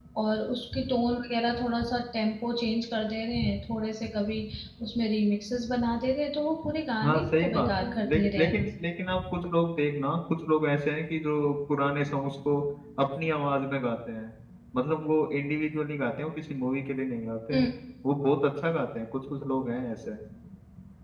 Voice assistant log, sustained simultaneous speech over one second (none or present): present